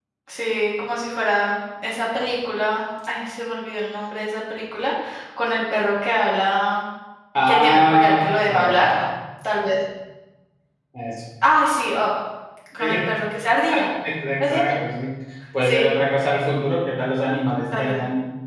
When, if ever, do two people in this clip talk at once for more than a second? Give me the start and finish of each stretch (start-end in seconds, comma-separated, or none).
7.4-8.9